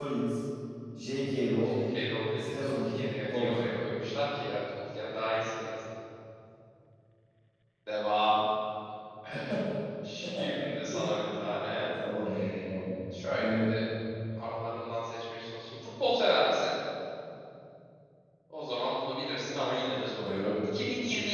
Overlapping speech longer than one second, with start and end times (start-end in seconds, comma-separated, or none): 2.4-3.8